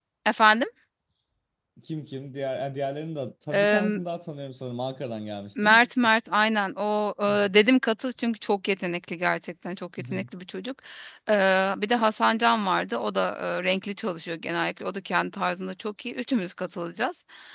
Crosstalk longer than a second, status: none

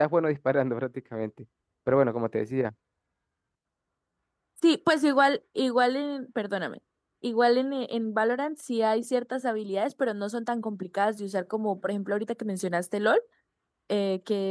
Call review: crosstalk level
none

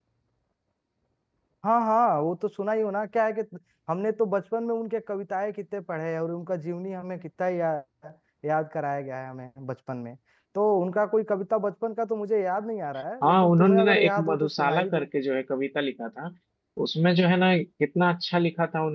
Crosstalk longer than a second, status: present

